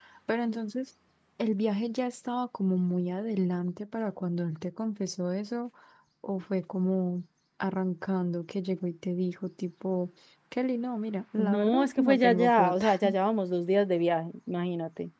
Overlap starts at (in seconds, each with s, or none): 11.4 s